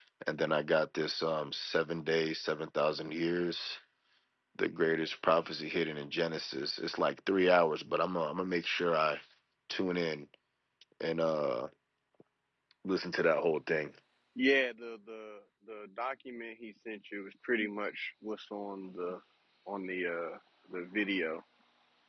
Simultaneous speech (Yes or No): No